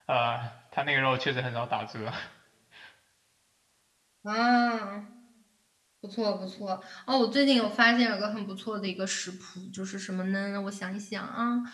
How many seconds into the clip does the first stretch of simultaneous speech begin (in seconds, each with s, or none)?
none